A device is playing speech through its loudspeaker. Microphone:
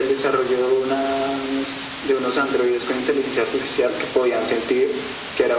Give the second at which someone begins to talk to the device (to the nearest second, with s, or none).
none